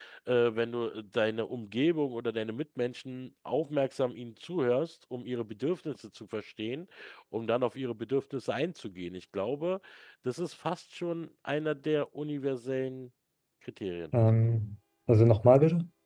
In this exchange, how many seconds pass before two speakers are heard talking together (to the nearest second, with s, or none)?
none